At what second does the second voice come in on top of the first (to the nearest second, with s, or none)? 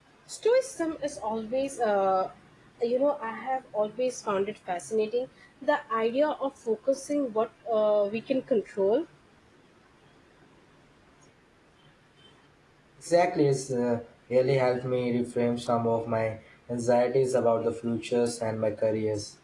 none